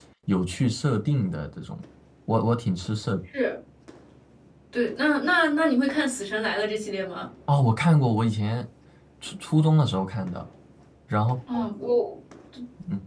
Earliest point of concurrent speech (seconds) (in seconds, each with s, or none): none